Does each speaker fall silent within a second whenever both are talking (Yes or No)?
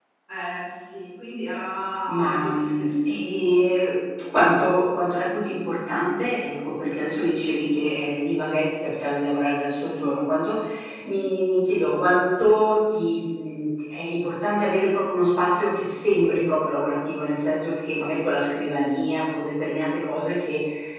No